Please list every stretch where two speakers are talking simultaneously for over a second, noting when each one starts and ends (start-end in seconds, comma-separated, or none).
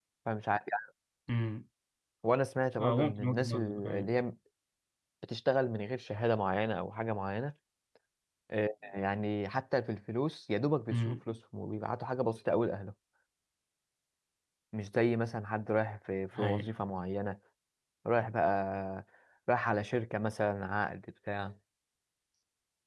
2.8-4.1